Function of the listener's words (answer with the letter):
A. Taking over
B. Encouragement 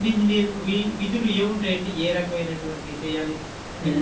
A